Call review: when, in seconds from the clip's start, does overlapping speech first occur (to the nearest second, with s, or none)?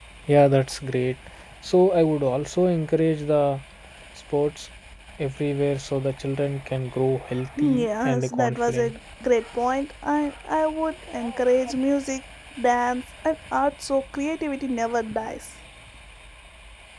8 s